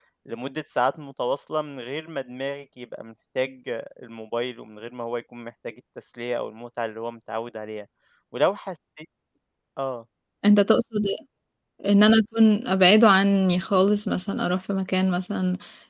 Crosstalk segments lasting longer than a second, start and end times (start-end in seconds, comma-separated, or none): none